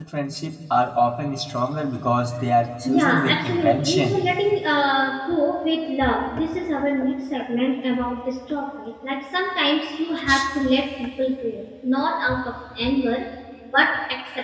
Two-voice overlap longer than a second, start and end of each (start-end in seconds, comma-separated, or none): 2.9-4.2